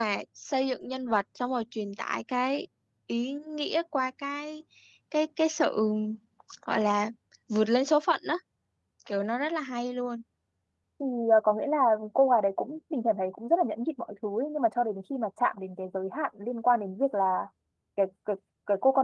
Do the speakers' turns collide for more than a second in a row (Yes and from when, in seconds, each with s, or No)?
No